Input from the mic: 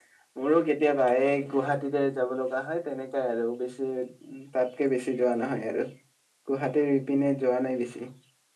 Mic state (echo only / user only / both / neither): user only